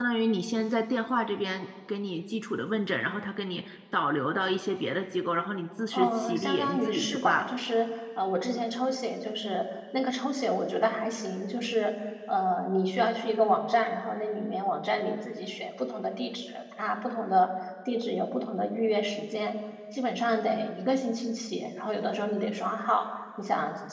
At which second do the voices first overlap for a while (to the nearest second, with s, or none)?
6 s